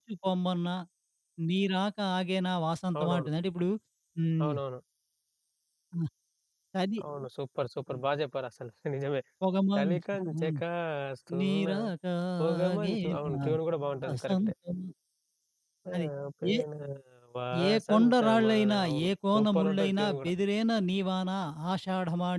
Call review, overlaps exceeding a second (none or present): present